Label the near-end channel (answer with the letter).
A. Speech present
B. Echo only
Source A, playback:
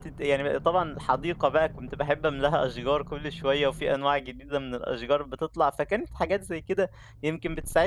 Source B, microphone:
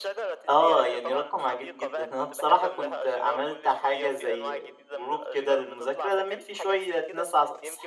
A